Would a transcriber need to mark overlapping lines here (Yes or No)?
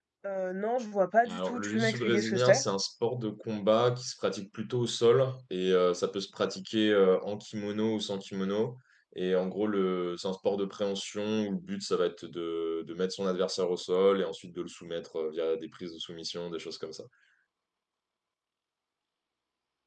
Yes